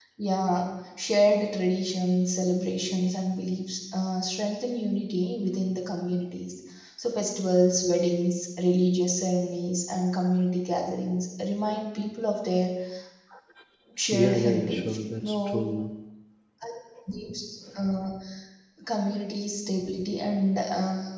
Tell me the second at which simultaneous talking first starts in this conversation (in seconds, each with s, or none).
14.1 s